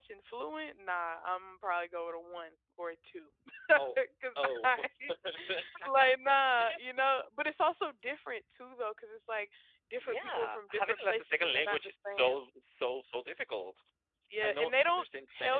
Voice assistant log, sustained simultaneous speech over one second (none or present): present